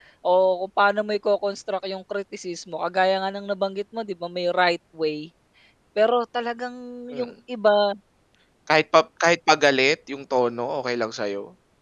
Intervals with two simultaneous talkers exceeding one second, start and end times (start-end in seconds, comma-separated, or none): none